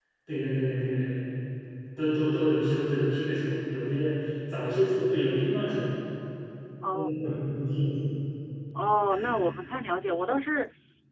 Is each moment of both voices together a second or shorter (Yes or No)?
Yes